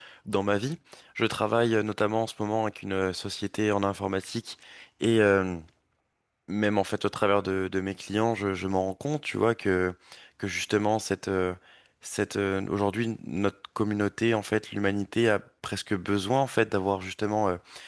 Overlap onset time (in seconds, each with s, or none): none